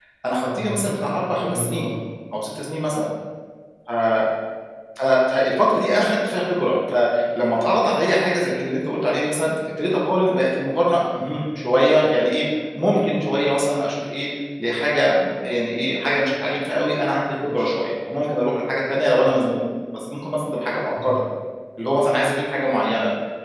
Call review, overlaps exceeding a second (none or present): present